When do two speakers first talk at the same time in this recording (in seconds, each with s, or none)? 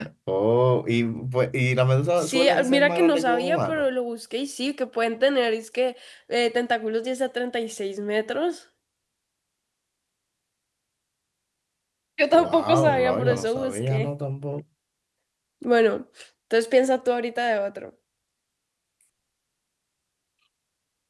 2.2 s